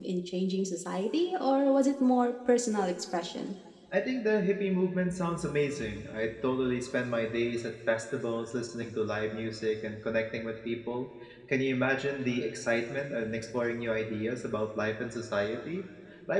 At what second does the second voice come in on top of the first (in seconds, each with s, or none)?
none